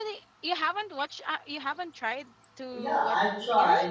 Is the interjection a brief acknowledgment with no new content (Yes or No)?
No